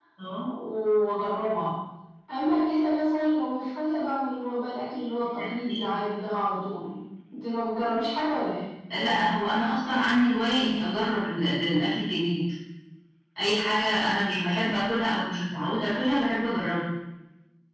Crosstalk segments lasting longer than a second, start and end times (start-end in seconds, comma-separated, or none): none